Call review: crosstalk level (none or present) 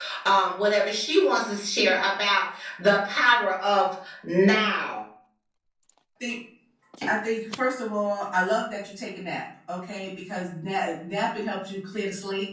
none